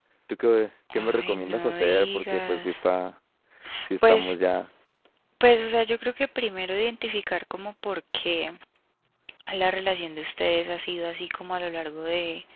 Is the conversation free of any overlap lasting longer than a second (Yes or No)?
No